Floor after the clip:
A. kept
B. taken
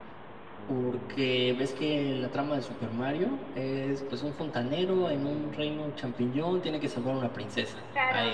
B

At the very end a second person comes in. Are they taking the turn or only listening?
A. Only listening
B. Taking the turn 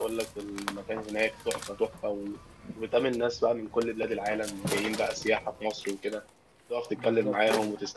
A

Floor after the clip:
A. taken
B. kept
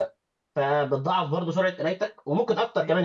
B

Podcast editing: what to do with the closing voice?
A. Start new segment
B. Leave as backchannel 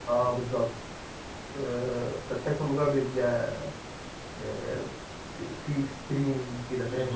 A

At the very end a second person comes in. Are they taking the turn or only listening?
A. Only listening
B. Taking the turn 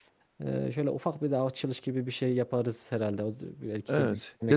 B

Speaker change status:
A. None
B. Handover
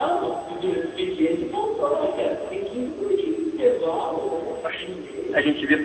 B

